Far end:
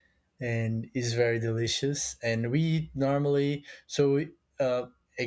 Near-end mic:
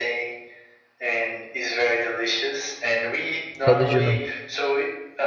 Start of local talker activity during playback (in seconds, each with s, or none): 3.6 s